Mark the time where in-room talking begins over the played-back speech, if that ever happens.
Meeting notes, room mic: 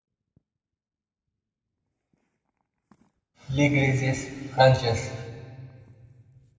3.5 s

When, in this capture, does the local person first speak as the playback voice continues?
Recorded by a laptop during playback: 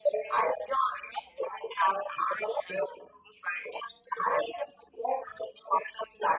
none

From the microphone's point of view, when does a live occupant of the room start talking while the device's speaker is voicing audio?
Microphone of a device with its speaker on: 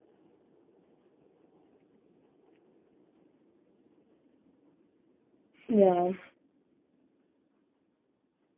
5.7 s

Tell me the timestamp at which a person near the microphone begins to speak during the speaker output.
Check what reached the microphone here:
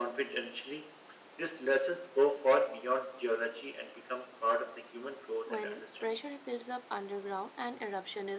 5.5 s

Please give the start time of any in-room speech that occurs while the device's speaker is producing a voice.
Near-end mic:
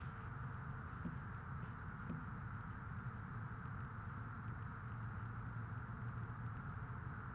none

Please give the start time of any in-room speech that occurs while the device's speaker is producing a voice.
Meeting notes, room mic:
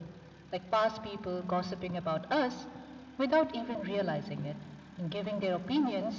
none

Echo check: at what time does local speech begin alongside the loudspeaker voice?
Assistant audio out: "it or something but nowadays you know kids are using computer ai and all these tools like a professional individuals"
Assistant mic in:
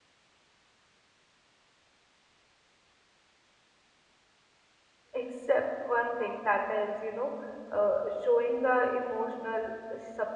5.1 s

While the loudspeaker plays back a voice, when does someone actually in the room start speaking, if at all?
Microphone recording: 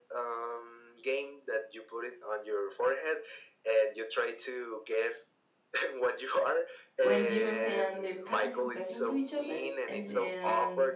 7.0 s

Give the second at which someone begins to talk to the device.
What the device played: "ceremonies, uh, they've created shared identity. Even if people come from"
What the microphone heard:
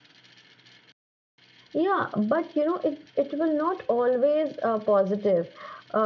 1.7 s

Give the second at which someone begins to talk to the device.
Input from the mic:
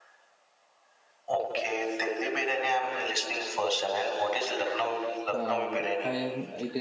5.4 s

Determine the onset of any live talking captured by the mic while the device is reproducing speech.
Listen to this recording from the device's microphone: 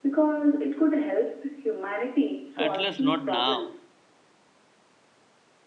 2.5 s

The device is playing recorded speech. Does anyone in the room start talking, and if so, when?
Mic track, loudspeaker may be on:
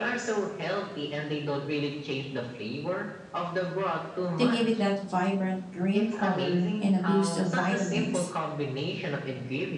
4.4 s

